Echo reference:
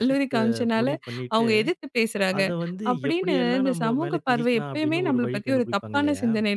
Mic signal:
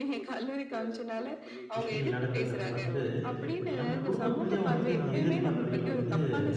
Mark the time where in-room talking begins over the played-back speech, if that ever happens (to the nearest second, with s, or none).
2 s